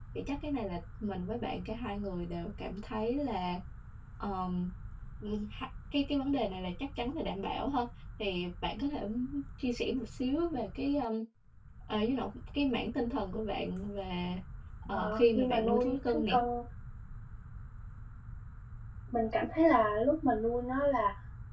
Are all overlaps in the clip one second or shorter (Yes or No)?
No